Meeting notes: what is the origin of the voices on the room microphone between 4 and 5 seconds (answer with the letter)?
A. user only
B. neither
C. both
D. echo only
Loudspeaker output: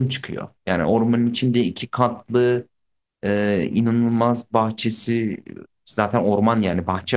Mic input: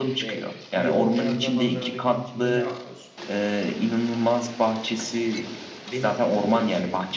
D